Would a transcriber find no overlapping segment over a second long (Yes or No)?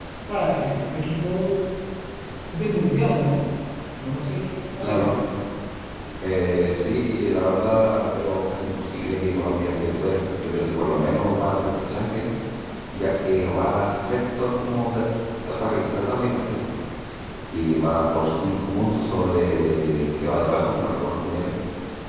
Yes